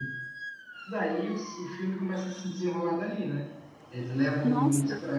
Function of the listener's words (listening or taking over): listening